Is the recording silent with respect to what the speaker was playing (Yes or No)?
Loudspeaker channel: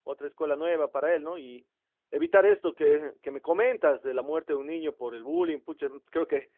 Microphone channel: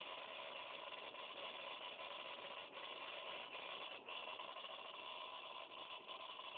Yes